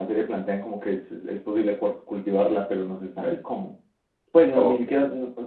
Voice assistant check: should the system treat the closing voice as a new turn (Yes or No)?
No